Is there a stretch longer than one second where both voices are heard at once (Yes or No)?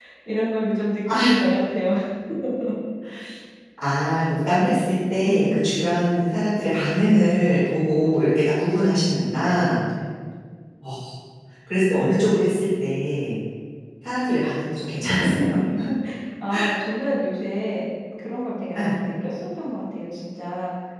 No